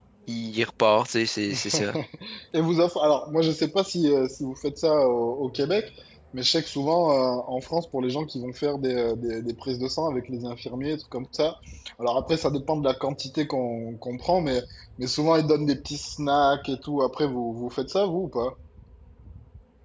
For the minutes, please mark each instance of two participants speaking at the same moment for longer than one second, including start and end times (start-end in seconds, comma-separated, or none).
none